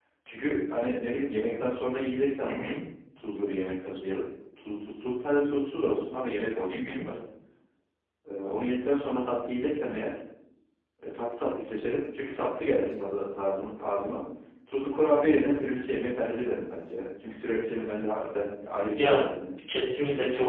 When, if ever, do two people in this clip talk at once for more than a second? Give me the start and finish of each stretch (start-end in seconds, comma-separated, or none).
none